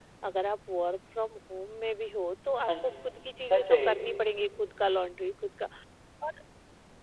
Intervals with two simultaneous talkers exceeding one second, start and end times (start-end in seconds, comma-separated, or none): 2.7-4.3